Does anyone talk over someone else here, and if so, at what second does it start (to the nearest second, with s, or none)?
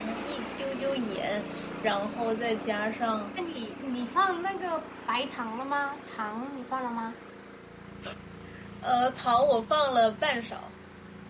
none